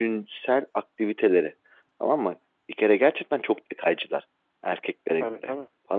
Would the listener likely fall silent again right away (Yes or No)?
Yes